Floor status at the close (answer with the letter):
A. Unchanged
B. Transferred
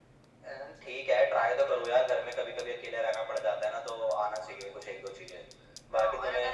B